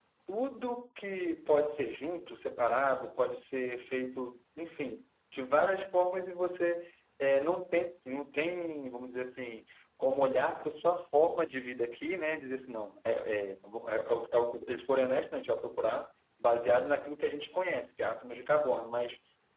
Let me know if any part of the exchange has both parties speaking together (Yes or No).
No